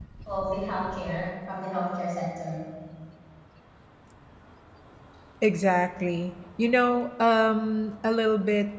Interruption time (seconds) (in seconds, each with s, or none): none